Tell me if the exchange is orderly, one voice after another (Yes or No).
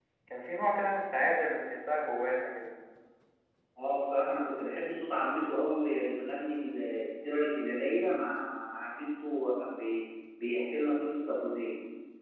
Yes